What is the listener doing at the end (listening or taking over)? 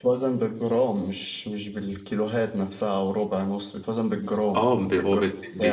taking over